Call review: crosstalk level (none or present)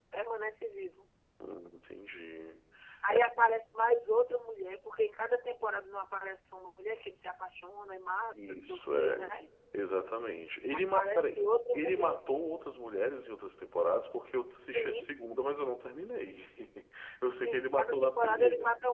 present